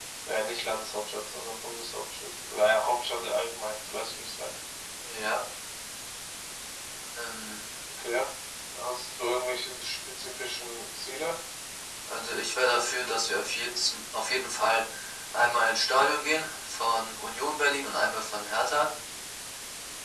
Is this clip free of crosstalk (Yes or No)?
Yes